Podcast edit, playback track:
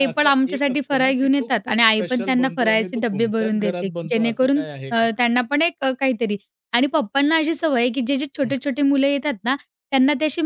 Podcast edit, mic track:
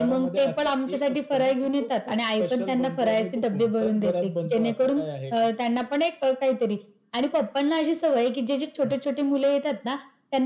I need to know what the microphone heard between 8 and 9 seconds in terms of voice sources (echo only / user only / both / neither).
echo only